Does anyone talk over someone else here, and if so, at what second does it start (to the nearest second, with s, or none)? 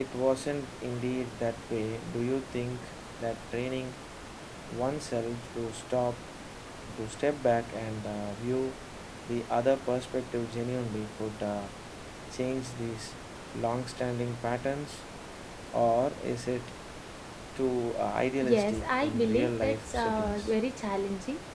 18 s